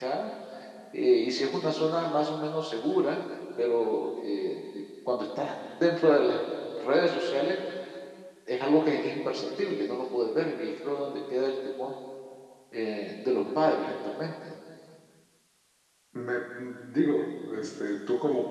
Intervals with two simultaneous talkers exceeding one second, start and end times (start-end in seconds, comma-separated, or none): none